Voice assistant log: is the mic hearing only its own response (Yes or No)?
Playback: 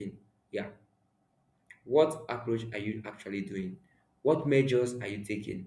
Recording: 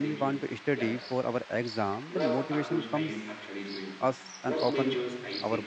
No